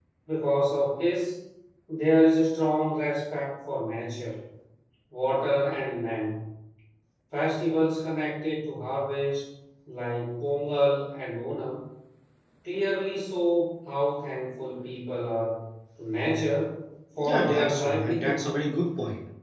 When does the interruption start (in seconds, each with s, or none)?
17.2 s